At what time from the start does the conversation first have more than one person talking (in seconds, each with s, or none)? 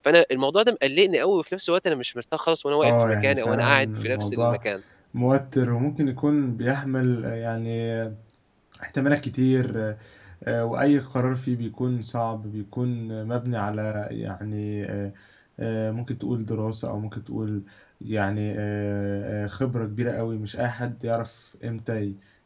2.8 s